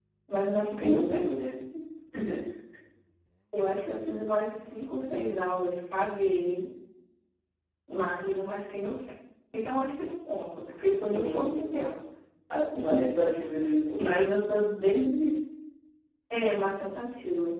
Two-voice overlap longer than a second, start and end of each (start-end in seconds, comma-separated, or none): none